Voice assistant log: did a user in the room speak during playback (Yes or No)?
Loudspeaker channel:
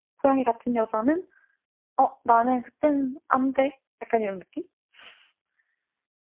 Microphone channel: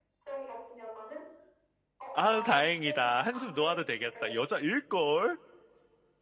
Yes